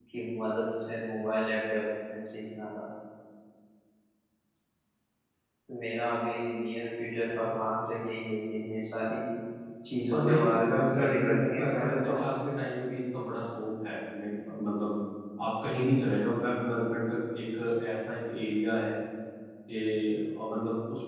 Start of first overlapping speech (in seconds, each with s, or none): 10.1 s